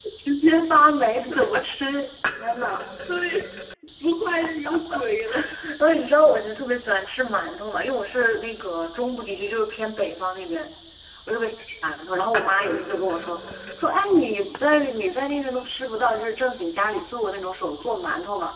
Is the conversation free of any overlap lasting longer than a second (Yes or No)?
Yes